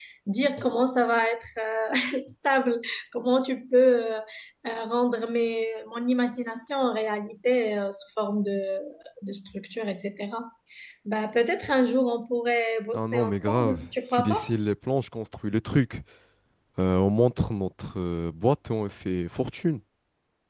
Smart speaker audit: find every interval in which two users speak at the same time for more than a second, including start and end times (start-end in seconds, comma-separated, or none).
12.9-14.4